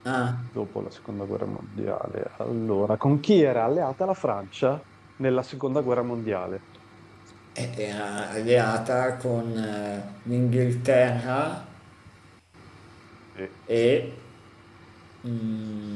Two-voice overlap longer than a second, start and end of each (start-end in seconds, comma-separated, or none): none